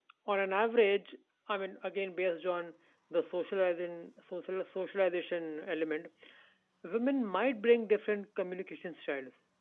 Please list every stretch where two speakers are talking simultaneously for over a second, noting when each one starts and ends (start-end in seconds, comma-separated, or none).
none